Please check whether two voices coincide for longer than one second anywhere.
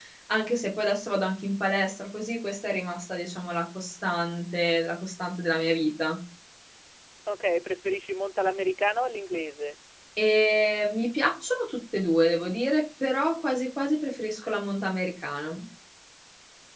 No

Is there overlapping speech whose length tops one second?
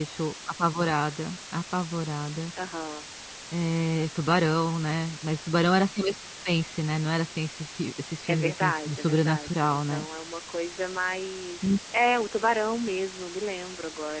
Yes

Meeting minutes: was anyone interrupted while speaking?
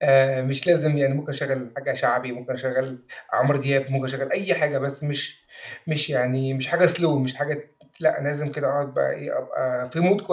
No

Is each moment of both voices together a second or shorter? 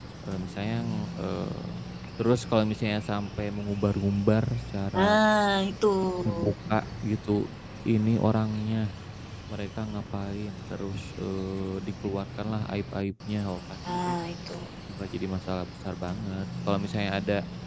Yes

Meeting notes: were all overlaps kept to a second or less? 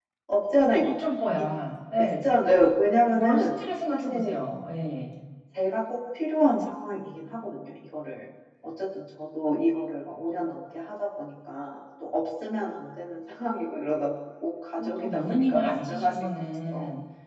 No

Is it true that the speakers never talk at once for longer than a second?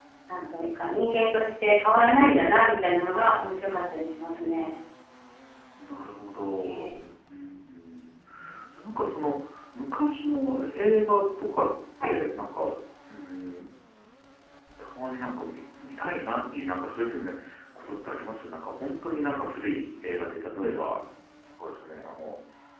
Yes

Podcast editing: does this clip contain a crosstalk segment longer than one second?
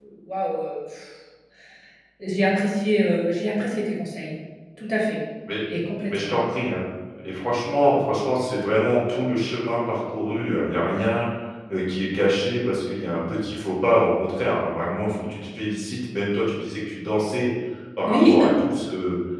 No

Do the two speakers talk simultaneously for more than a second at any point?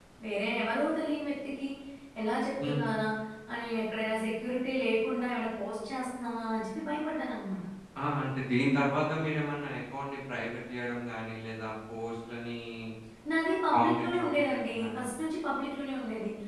Yes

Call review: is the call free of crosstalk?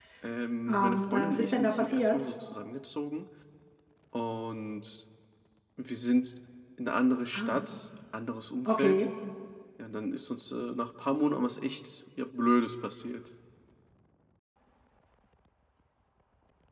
No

